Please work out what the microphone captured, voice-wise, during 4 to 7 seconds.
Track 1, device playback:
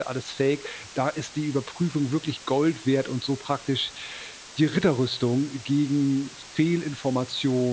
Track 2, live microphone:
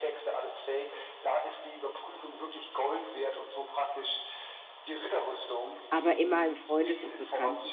both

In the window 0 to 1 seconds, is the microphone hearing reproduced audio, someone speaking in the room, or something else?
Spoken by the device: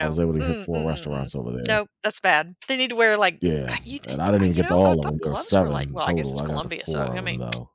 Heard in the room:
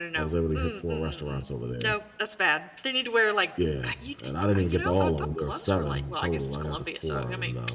echo only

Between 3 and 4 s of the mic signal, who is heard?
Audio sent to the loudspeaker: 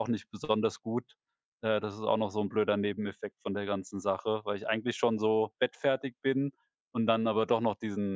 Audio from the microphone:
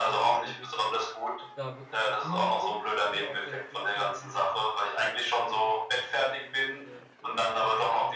both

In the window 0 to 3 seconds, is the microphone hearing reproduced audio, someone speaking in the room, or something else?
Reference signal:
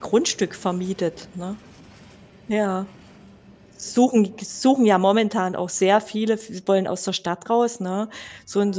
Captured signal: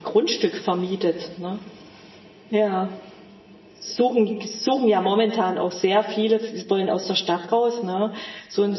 echo only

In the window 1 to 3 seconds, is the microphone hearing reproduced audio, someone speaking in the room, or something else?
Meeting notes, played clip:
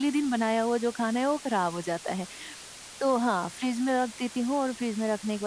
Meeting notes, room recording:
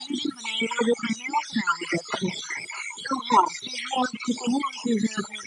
echo only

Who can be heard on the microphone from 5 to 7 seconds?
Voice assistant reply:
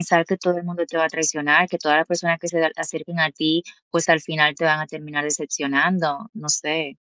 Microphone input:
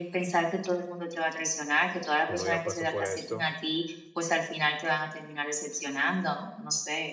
echo only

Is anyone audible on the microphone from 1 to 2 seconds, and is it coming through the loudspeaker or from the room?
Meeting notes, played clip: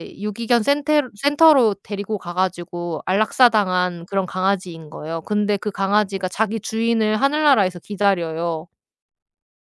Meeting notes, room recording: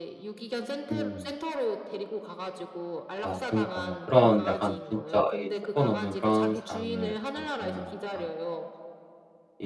both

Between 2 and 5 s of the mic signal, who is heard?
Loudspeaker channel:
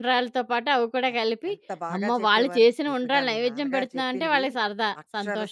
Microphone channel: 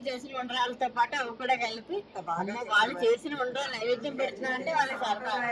both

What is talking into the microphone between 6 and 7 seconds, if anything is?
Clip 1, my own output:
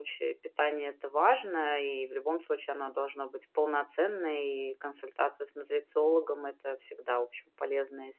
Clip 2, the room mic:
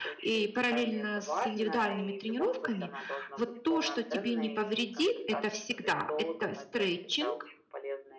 both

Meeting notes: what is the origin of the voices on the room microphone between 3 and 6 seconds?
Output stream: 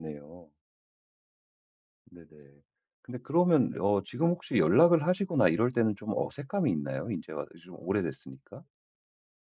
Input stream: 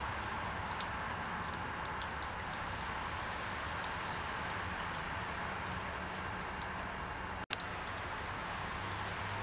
neither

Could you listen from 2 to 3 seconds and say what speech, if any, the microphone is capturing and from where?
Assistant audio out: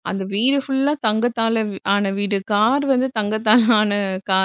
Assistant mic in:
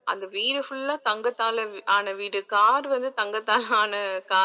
echo only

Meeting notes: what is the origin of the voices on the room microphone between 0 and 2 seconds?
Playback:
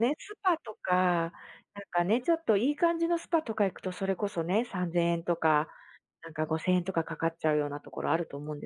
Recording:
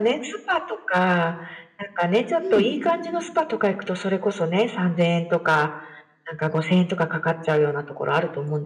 echo only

